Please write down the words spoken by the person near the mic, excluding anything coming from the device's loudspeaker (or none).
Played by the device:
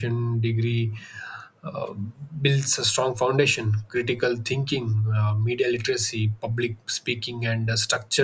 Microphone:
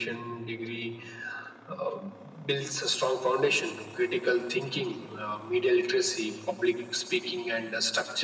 none